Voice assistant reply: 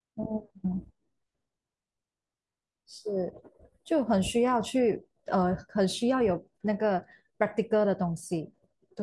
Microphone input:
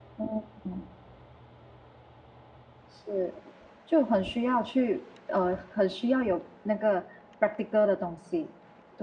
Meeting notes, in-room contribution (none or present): none